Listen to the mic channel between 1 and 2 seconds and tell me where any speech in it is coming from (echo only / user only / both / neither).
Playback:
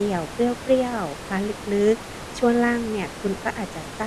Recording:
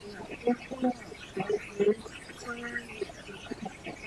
echo only